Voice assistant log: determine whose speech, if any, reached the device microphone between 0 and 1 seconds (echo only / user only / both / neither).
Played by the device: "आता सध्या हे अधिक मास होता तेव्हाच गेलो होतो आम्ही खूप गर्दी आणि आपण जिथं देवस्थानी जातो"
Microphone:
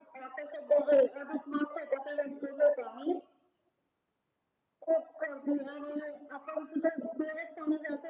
echo only